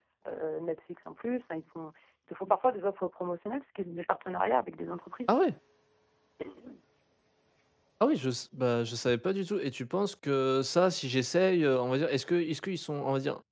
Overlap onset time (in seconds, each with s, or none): none